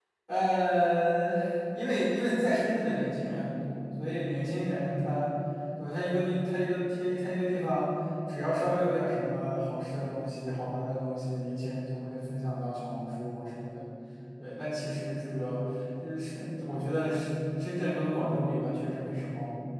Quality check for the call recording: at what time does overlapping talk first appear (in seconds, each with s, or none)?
none